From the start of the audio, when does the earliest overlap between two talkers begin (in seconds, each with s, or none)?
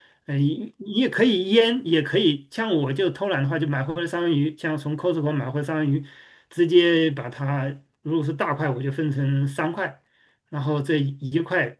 none